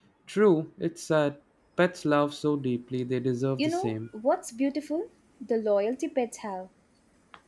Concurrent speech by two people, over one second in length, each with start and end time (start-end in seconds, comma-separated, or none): none